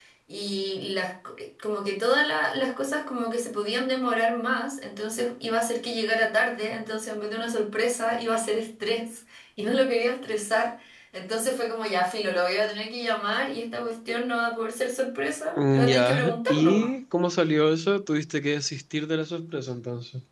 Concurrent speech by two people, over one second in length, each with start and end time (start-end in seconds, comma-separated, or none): 15.6-16.9